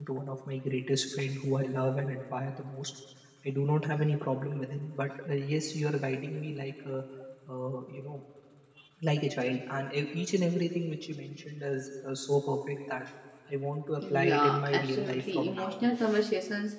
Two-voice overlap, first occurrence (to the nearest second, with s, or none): 14 s